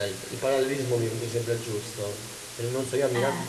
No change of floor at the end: Yes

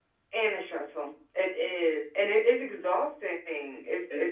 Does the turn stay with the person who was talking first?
Yes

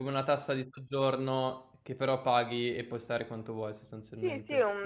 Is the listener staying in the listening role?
No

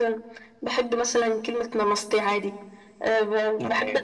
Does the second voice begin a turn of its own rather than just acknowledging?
No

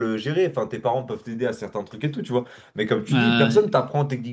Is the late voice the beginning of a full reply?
No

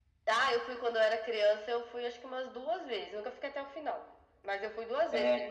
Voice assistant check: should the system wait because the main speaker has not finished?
Yes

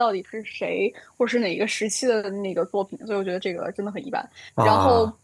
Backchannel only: Yes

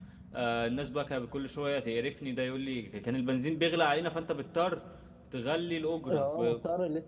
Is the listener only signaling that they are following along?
No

